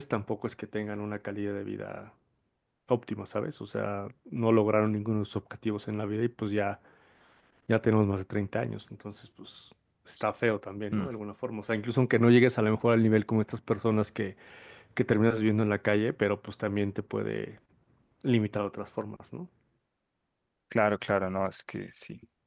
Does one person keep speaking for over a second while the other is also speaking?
No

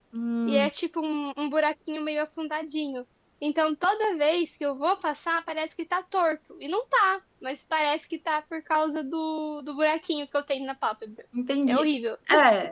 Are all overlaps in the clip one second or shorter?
Yes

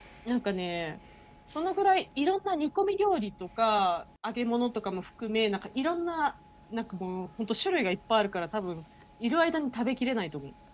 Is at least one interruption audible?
No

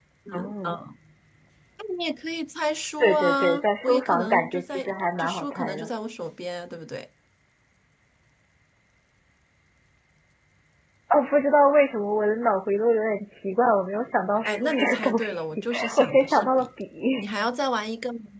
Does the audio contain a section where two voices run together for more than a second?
Yes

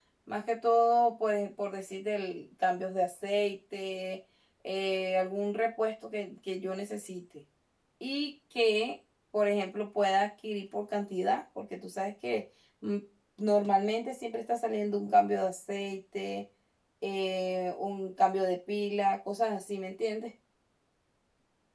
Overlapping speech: No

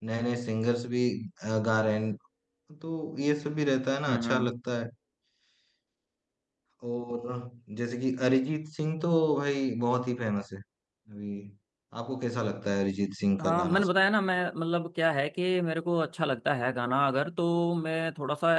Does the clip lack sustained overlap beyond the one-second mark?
Yes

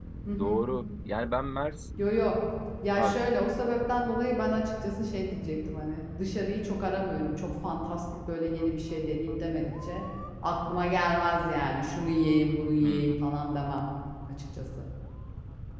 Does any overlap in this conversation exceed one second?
No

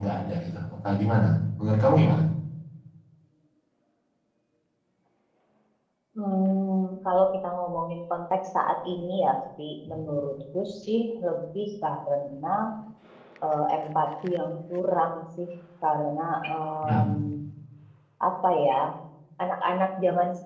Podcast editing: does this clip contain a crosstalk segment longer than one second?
No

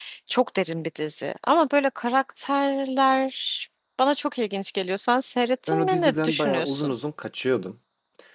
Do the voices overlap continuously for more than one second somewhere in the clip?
Yes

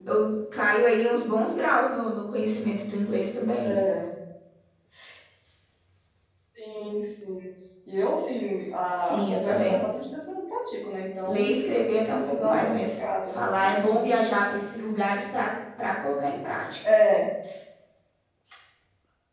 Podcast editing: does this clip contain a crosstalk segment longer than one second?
Yes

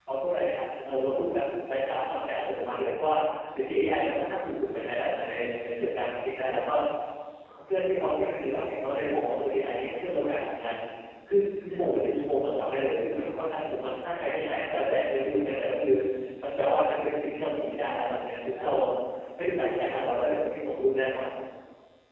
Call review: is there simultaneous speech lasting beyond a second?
No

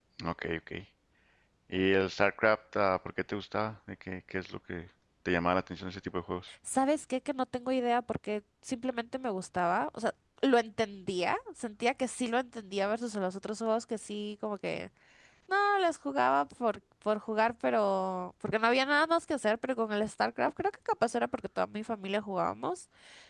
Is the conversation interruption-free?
Yes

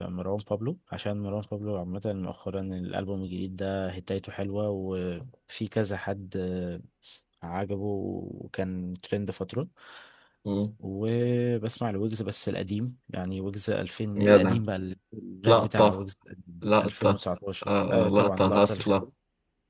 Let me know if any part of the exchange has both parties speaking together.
Yes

